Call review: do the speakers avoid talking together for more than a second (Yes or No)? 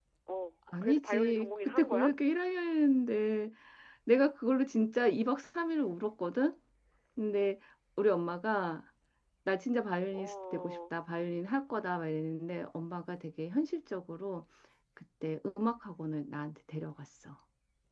No